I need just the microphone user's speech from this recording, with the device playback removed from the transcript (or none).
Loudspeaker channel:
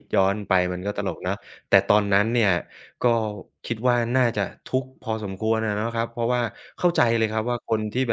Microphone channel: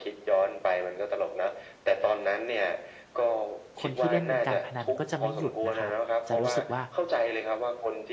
คนที่เล่นเป็นการพนันก็จะไม่หยุดนะครับจะรู้สึกว่า